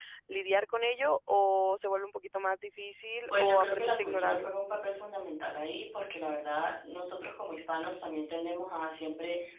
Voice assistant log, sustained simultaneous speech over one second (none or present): present